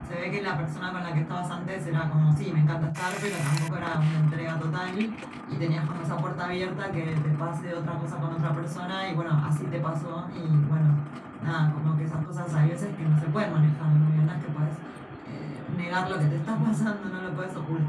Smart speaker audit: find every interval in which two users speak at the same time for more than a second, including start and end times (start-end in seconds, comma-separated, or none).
none